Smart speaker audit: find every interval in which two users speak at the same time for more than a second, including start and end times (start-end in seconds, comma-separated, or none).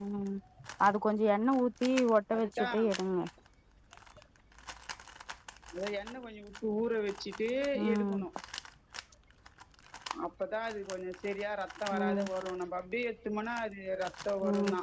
none